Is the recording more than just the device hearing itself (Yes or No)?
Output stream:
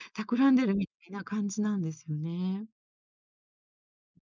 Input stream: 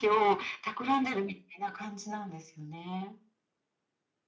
No